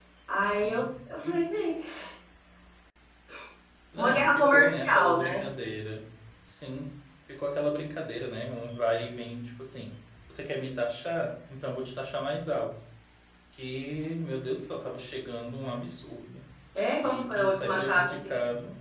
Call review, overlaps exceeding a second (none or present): present